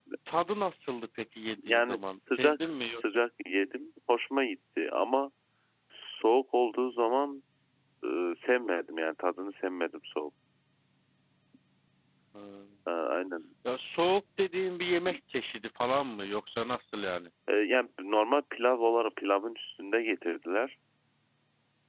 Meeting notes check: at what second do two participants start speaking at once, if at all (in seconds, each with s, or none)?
1.6 s